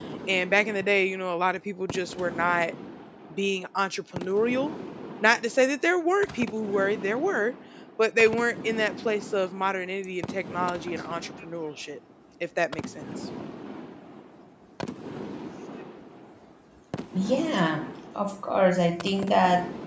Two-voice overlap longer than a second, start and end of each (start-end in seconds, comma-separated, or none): none